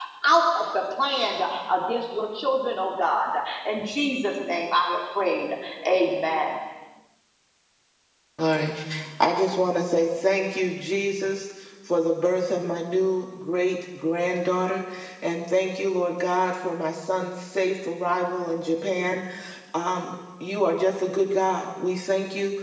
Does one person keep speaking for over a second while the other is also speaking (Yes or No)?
No